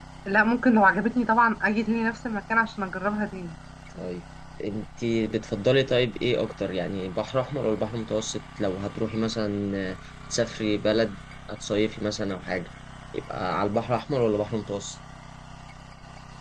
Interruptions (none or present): none